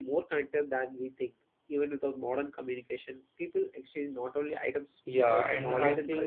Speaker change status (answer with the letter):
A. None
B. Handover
B